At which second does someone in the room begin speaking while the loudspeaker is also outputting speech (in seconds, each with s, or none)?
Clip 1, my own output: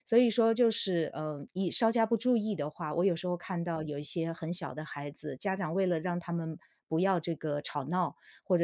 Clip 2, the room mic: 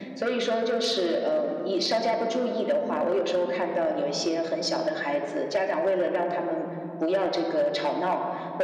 none